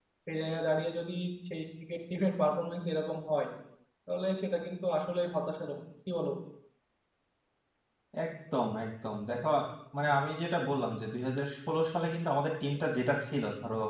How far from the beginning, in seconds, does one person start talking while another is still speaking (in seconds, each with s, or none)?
none